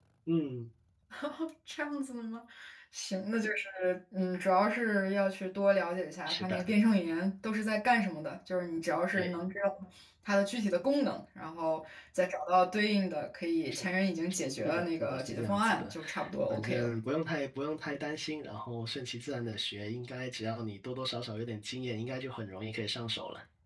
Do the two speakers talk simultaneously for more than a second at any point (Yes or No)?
Yes